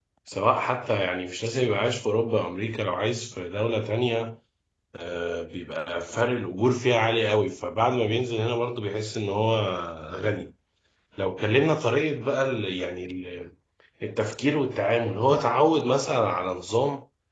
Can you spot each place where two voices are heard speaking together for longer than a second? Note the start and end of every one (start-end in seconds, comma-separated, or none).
none